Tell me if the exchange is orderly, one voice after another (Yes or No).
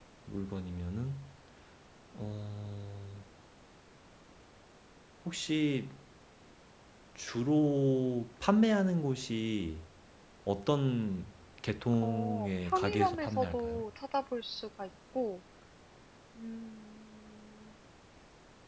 No